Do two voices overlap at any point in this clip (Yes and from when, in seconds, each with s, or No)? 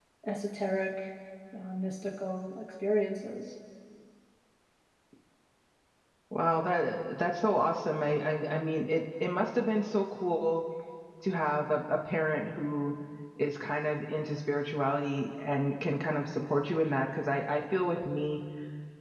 No